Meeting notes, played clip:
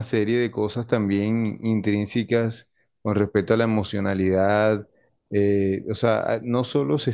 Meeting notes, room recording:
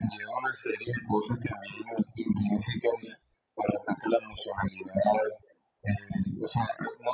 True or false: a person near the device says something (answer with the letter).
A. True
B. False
B